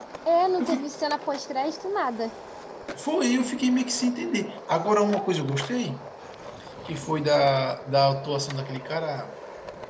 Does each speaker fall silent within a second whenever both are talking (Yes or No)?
Yes